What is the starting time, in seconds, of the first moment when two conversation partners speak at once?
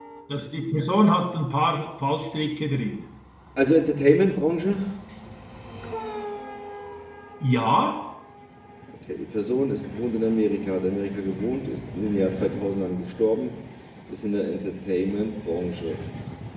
none

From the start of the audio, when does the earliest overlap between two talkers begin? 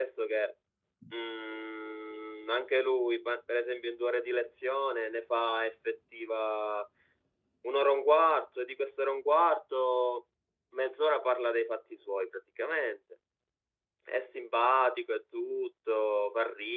none

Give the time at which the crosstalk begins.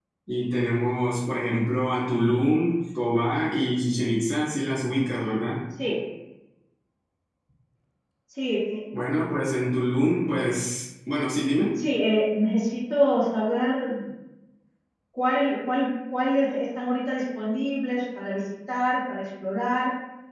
none

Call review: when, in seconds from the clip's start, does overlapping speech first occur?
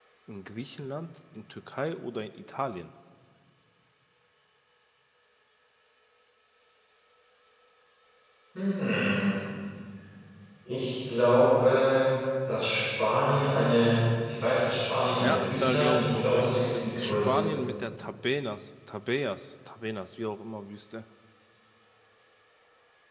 15.2 s

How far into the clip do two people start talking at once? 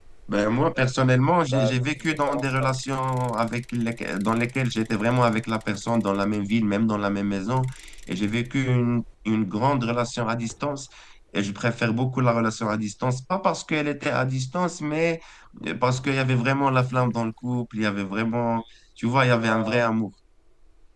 1.5 s

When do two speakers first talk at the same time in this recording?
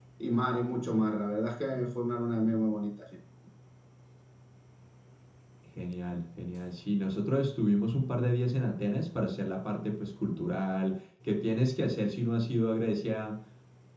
none

